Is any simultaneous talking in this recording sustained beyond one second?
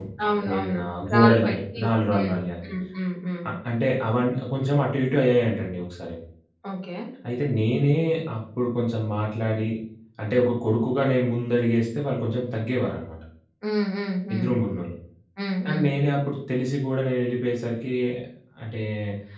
Yes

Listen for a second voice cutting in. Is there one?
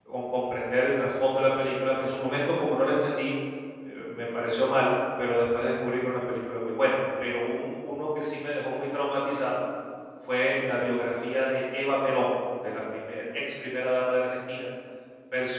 No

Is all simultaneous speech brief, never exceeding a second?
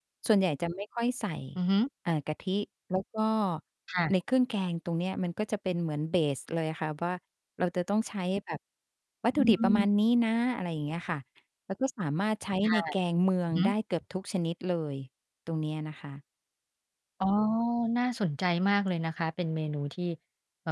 Yes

